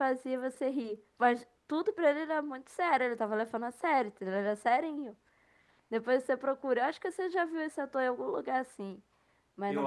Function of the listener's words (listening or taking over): taking over